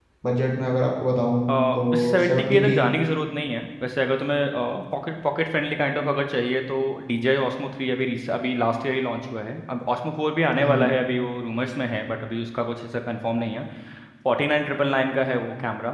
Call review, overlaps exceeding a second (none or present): present